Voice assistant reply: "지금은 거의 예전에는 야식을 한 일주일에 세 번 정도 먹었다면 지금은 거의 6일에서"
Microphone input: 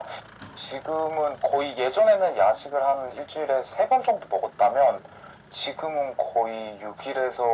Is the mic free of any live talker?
Yes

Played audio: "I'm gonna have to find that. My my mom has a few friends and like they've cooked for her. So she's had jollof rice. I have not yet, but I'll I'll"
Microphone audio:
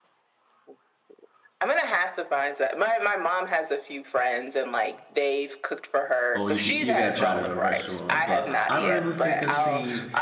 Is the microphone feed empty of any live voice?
No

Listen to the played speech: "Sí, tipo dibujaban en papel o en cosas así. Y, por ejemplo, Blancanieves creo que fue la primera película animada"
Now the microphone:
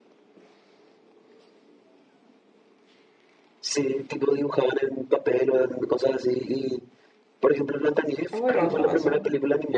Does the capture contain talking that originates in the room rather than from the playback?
Yes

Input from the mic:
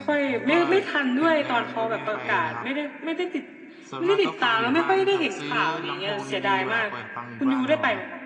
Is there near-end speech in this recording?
Yes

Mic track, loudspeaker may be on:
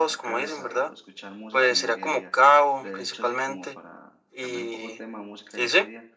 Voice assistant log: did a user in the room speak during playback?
Yes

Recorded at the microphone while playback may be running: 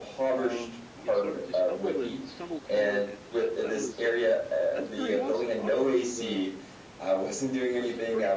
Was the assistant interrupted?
Yes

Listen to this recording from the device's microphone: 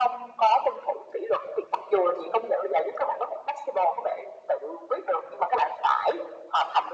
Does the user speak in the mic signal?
No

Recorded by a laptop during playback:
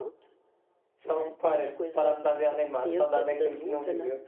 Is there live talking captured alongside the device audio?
Yes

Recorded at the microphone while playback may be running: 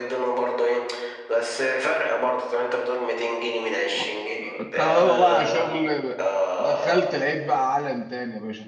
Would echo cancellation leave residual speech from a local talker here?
Yes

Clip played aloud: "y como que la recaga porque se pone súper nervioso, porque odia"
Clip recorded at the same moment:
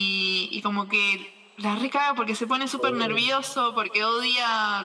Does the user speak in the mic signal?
Yes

